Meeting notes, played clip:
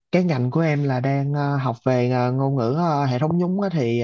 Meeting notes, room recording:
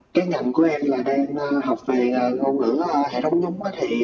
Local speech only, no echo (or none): none